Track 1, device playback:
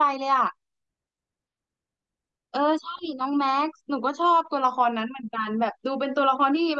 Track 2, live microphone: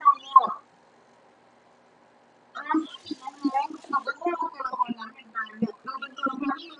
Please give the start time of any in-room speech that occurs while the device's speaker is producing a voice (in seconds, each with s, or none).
none